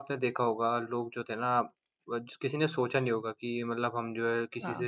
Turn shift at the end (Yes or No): No